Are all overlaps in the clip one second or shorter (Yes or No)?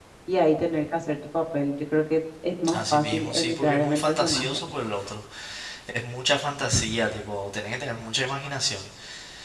No